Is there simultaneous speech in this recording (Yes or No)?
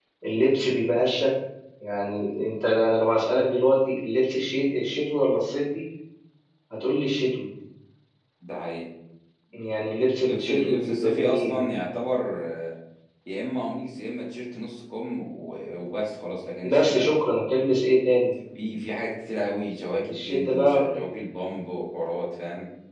Yes